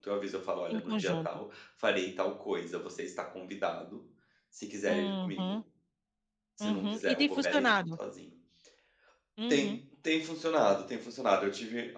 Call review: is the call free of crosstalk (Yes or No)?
No